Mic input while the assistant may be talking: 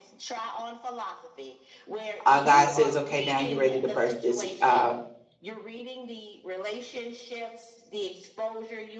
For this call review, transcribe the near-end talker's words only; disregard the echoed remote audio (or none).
uh, God says, okay, now you're ready to birth this uh,